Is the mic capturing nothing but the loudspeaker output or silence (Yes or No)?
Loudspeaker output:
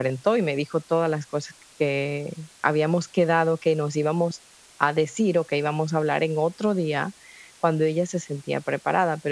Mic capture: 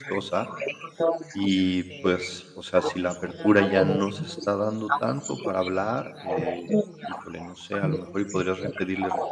No